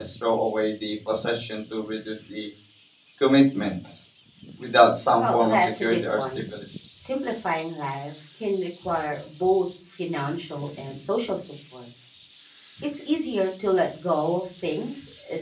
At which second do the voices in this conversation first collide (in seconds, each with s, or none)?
5.2 s